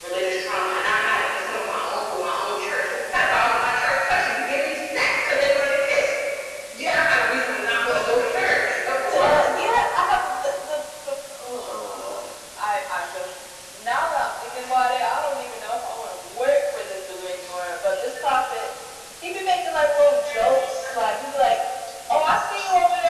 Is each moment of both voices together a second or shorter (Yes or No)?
Yes